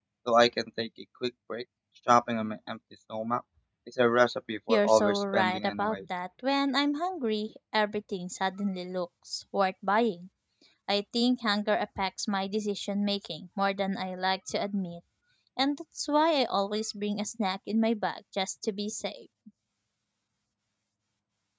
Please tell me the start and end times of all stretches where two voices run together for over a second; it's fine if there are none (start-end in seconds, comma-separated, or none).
4.7-6.0